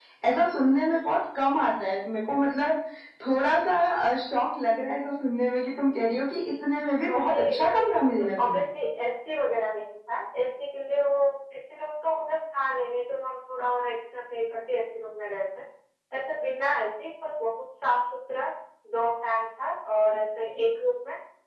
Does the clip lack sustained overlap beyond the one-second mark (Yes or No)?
No